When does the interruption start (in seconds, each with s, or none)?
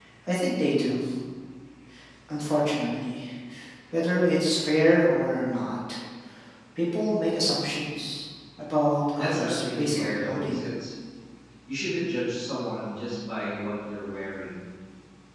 9.2 s